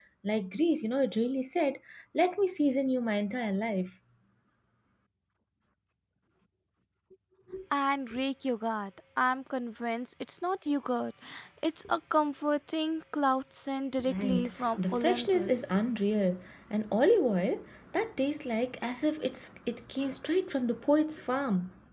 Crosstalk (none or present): present